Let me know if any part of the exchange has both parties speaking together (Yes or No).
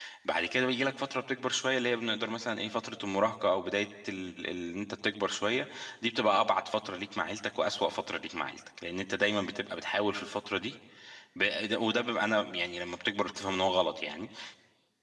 No